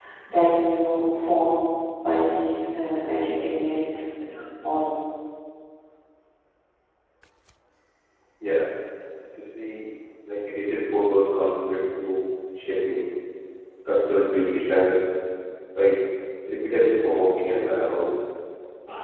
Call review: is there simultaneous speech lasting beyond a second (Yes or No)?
No